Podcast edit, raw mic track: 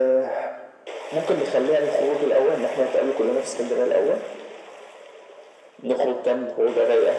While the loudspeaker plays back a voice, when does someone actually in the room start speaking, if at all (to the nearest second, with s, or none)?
none